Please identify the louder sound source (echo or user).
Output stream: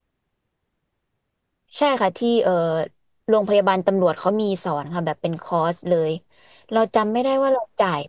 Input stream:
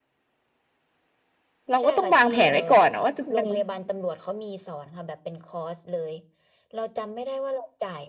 user